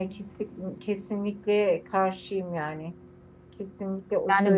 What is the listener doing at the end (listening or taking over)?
listening